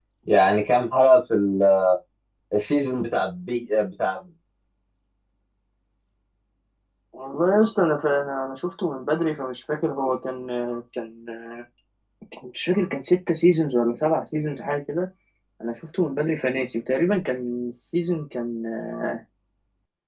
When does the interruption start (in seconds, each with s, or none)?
none